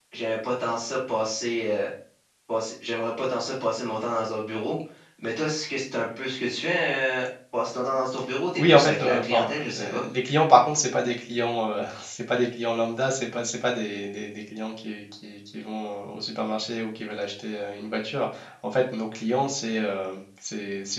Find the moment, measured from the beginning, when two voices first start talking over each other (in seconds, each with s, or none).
8.5 s